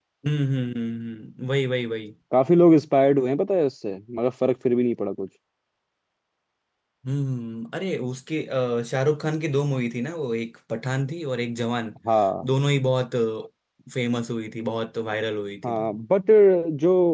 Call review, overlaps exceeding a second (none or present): none